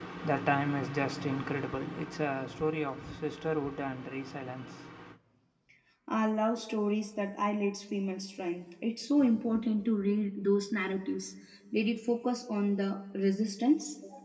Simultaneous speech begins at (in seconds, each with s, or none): none